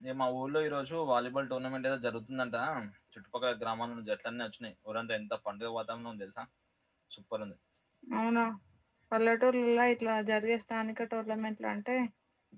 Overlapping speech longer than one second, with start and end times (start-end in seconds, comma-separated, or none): none